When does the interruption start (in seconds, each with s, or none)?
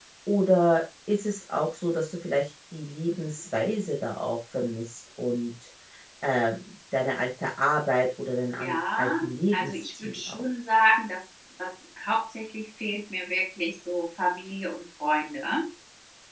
8.6 s